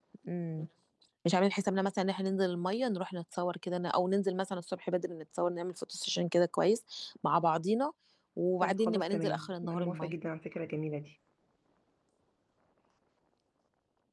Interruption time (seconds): 8.6 s

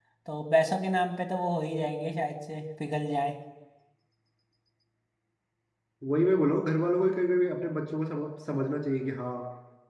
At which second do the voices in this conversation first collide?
none

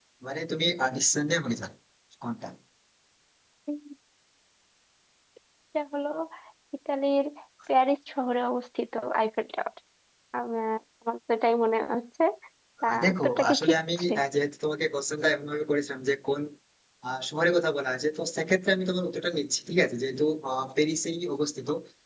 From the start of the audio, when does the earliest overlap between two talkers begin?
12.9 s

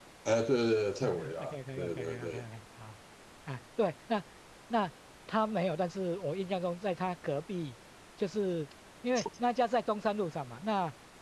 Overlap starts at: 1.0 s

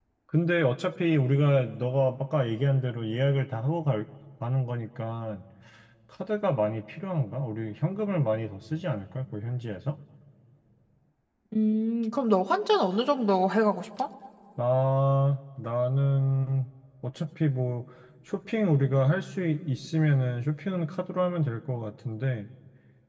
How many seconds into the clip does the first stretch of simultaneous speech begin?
none

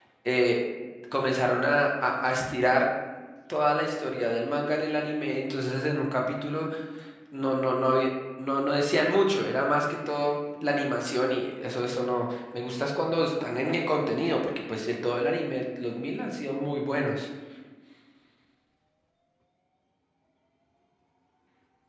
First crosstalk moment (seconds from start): none

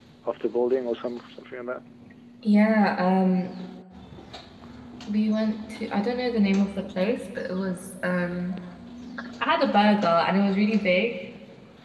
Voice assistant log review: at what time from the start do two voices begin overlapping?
none

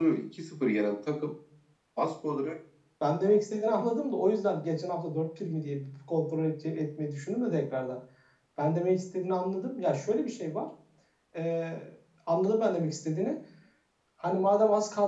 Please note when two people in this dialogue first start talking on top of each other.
none

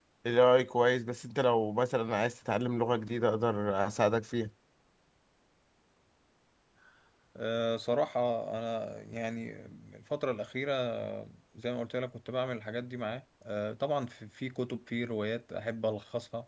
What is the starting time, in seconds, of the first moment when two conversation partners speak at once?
none

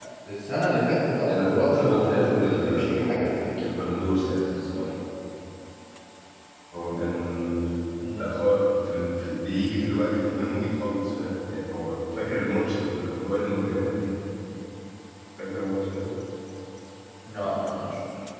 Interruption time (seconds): 1.2 s

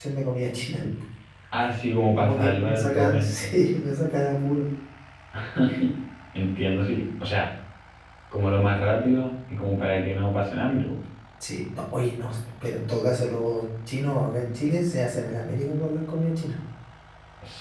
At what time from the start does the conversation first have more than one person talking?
2.2 s

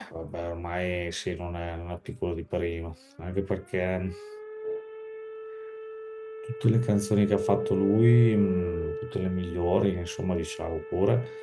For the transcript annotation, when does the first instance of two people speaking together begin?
none

